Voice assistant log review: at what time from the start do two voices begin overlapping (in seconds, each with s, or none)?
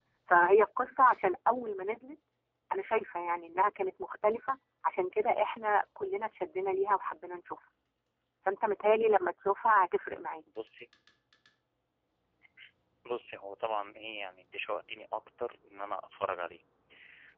none